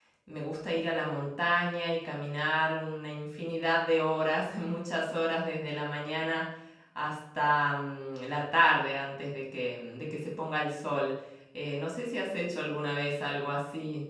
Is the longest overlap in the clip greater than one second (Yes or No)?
No